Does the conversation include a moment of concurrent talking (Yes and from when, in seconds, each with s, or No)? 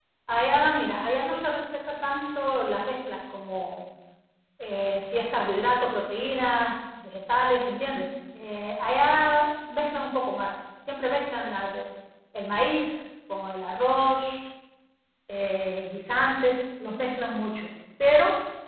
No